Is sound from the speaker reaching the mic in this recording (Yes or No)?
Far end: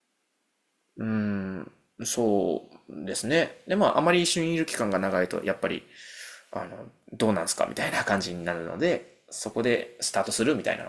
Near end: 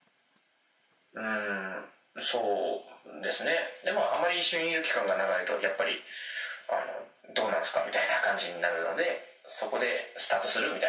Yes